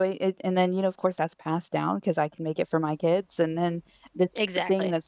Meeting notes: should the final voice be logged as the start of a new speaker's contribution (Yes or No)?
No